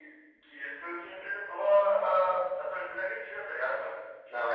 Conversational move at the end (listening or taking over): listening